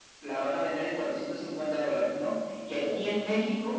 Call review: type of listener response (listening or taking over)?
listening